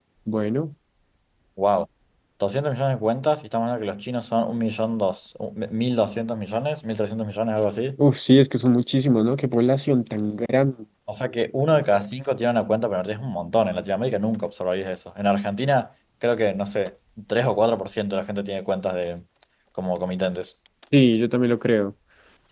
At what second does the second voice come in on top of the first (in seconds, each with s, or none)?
none